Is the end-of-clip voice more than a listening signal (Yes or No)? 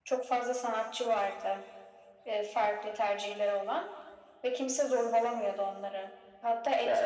No